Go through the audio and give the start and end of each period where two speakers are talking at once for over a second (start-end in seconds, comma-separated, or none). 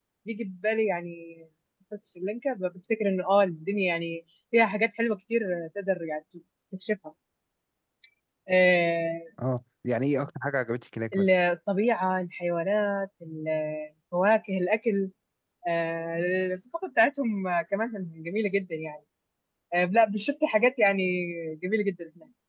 none